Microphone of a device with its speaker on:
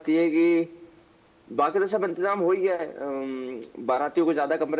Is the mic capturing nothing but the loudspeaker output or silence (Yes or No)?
Yes